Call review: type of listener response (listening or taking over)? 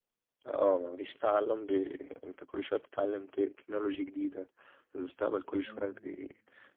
listening